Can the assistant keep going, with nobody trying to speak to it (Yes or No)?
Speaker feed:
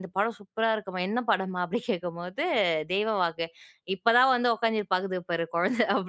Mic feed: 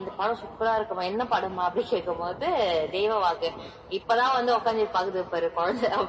Yes